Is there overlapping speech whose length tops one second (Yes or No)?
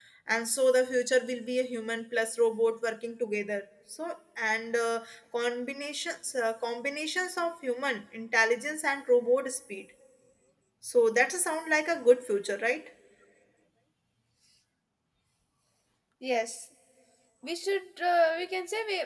No